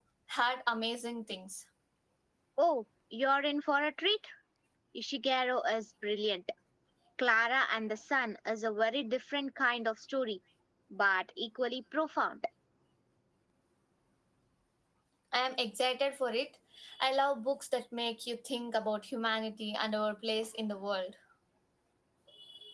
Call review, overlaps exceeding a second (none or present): none